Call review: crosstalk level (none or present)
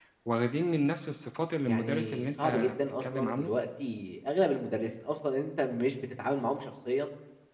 present